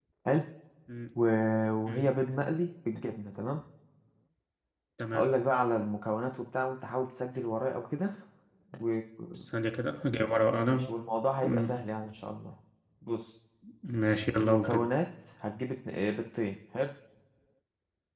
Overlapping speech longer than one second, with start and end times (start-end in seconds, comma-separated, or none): none